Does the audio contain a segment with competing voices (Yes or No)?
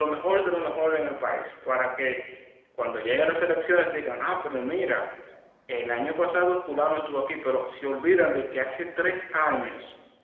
No